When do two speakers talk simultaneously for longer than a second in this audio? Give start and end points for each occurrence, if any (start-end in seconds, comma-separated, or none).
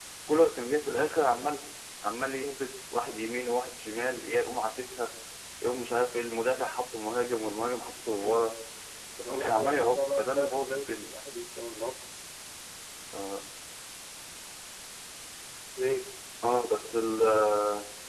9.2-11.1